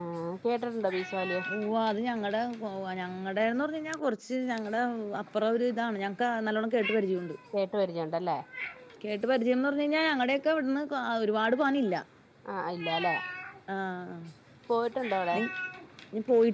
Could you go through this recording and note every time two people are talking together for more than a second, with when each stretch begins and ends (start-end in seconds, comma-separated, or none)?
none